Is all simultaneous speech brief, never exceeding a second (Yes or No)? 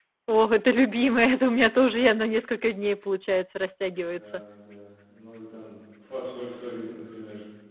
Yes